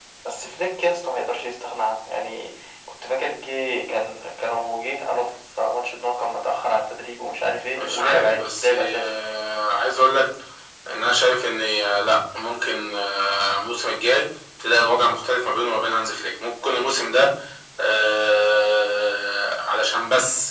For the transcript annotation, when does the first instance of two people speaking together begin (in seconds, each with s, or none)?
7.7 s